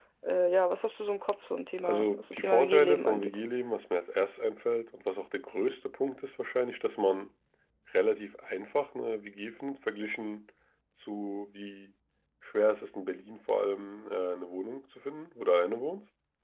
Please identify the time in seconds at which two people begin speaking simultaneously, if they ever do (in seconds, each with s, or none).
1.8 s